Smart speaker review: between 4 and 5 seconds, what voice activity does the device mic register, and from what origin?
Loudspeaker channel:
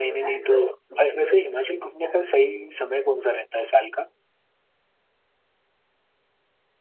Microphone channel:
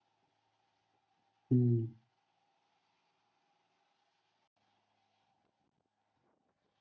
neither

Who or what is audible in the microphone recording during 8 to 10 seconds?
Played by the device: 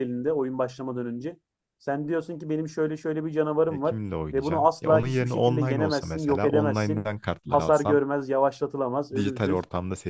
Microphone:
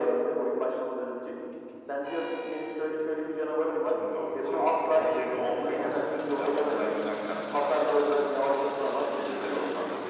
echo only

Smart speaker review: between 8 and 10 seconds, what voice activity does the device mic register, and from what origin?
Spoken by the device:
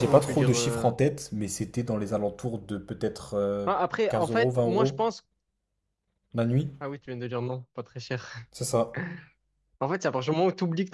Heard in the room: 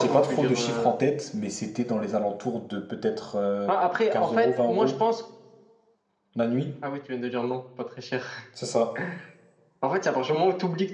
echo only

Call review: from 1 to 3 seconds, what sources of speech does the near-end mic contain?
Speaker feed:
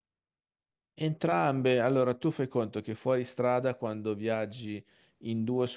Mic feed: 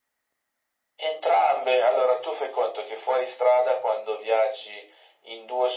echo only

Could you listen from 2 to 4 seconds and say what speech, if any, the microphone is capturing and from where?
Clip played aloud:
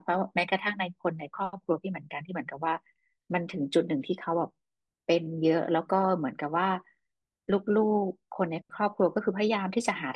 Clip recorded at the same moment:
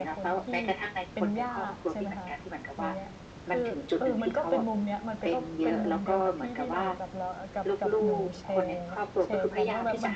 both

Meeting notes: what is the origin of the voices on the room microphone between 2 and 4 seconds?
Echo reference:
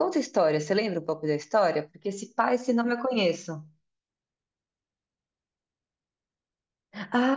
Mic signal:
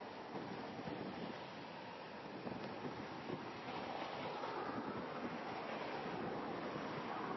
neither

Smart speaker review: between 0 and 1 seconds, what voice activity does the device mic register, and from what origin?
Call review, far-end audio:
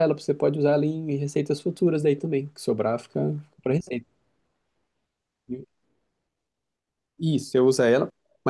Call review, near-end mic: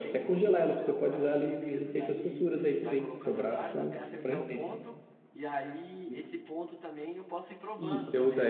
both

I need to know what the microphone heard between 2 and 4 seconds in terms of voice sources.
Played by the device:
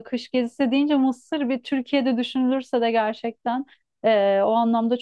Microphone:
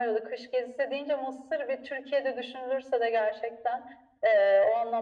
echo only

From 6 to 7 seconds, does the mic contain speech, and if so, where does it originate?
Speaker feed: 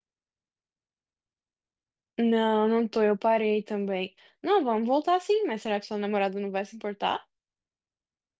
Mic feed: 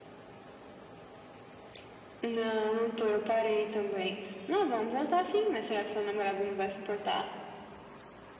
echo only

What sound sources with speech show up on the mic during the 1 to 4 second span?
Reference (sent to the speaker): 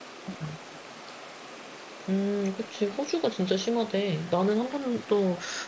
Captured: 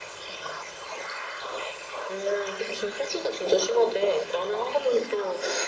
echo only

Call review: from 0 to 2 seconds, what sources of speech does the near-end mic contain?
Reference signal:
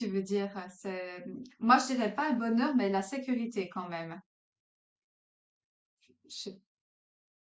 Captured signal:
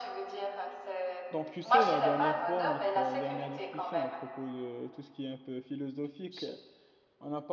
both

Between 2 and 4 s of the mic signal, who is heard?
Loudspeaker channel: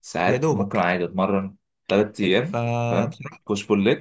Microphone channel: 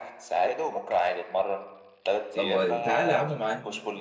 both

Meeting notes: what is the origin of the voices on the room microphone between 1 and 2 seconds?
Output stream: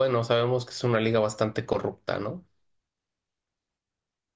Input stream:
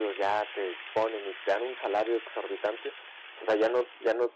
user only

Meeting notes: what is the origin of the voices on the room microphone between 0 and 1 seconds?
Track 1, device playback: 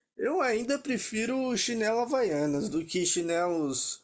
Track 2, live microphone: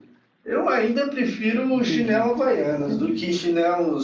echo only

